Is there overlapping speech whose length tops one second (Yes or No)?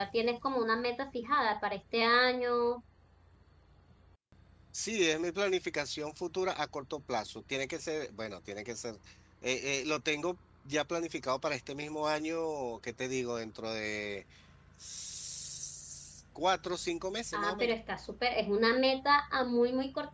No